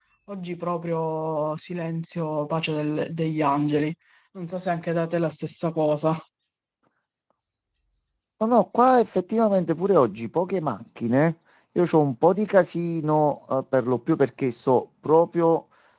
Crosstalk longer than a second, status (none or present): none